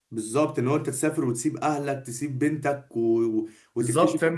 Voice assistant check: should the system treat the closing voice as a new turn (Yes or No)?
Yes